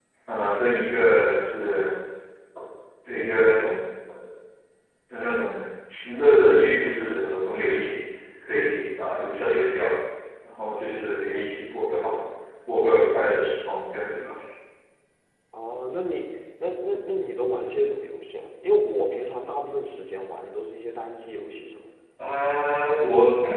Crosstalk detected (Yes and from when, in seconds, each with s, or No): No